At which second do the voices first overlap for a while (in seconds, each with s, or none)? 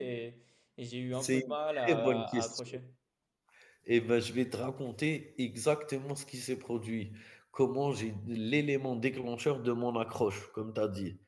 1.1 s